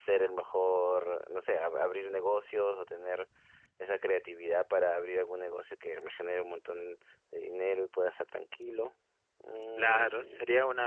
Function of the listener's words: taking over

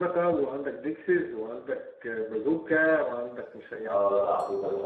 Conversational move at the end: taking over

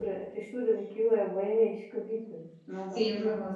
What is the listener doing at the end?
taking over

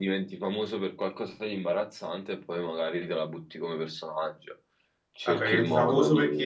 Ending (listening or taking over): taking over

